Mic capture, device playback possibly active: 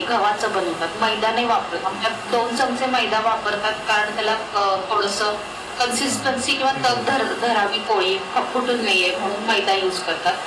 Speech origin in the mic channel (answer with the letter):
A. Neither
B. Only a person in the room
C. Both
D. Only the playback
C